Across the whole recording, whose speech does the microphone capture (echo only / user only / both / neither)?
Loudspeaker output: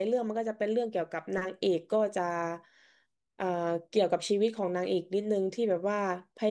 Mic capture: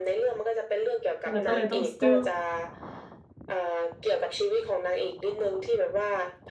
both